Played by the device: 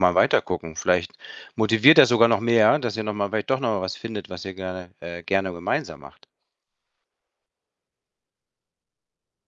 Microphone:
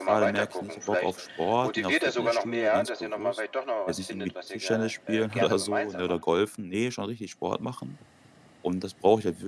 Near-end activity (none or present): present